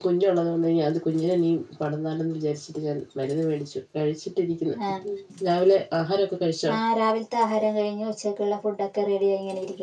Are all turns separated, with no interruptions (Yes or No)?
Yes